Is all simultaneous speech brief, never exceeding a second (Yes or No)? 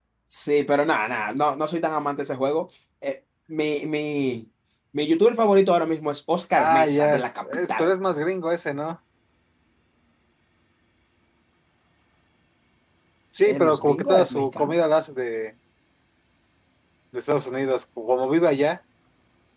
No